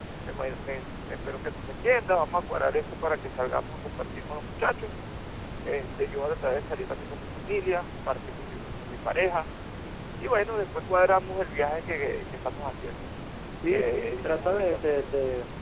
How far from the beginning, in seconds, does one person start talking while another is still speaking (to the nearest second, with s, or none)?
14 s